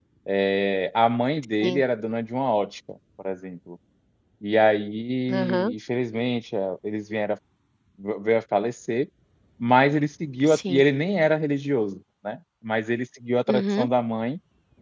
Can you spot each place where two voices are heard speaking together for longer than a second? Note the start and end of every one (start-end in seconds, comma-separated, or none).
none